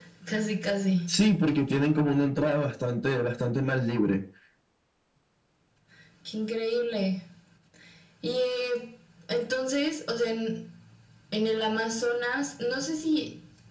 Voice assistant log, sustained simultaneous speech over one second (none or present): none